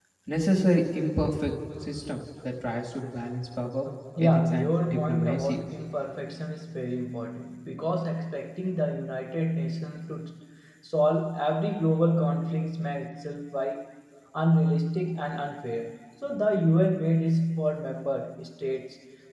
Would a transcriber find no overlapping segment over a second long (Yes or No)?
No